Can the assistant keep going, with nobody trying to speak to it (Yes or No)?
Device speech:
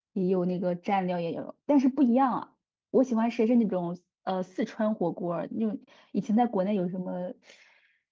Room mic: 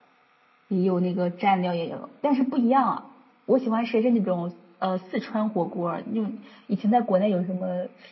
Yes